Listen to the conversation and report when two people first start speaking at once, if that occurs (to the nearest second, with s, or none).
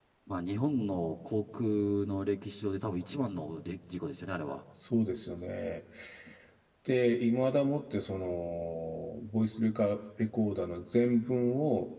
none